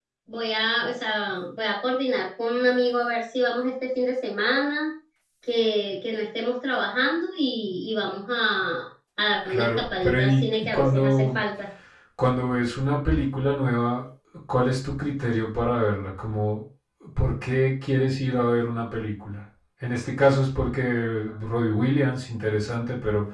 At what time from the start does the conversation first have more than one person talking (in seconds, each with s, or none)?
9.5 s